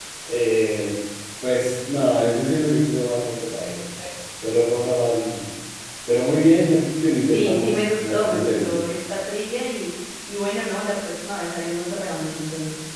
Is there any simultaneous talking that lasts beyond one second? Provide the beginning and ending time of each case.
7.2-8.7

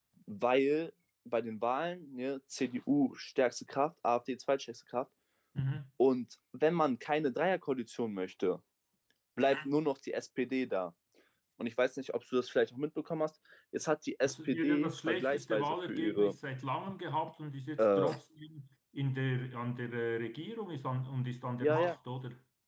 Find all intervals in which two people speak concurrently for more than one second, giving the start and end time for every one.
14.2-16.3

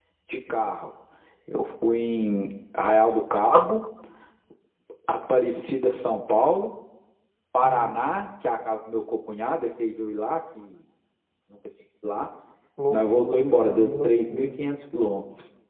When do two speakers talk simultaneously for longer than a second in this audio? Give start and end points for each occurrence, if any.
12.9-14.5

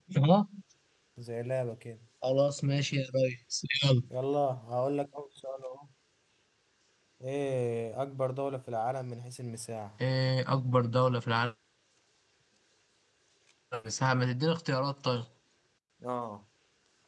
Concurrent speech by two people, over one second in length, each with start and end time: none

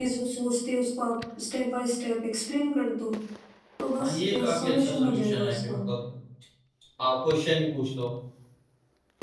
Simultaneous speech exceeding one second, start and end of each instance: 4.0-5.7

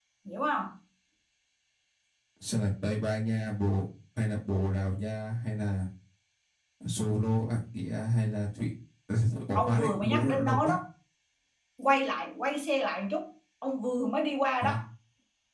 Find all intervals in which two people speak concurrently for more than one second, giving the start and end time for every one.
9.6-10.8

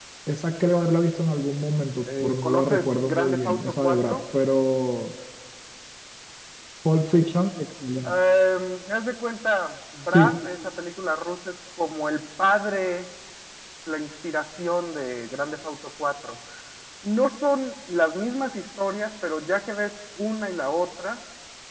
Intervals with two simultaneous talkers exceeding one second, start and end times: 2.2-4.2

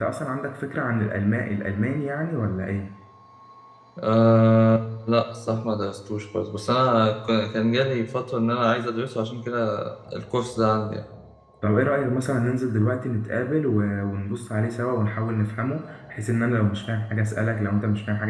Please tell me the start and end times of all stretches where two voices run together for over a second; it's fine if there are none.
none

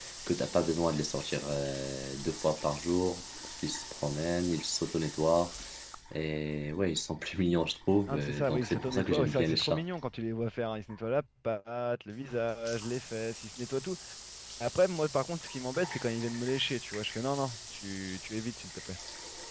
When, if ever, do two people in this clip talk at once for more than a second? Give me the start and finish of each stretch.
8.1-9.8

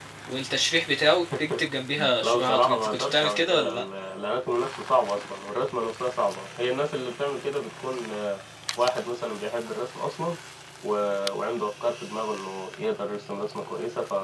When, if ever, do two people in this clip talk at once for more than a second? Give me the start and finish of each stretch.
2.2-3.8

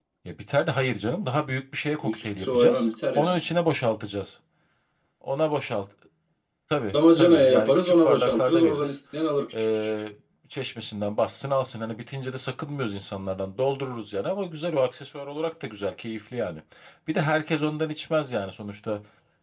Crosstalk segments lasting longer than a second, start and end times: 2.1-3.4, 6.9-9.0

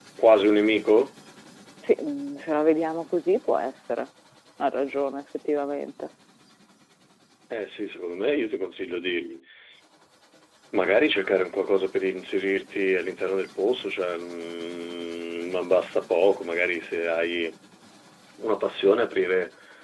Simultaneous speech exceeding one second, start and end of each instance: none

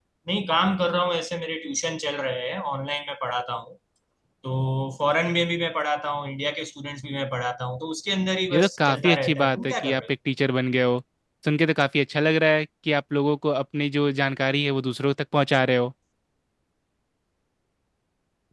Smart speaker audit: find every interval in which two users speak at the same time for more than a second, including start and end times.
8.5-10.0

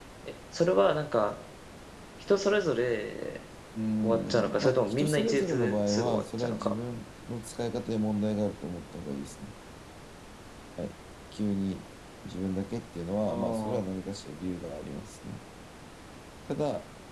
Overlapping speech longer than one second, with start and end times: 4.0-6.7

